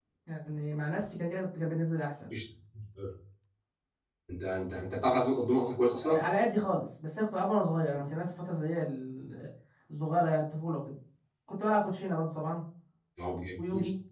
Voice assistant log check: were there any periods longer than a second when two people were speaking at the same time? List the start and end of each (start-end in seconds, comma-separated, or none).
none